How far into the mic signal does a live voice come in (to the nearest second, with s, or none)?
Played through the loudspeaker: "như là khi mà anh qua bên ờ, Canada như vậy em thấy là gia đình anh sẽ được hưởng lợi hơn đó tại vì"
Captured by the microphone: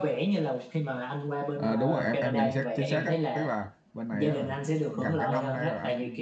2 s